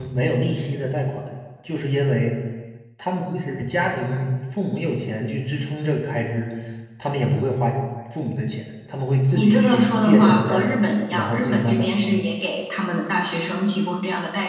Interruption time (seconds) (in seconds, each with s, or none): 9.3 s